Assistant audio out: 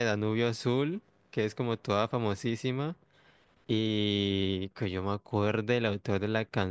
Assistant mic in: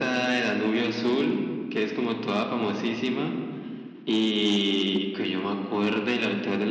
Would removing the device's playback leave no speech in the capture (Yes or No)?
Yes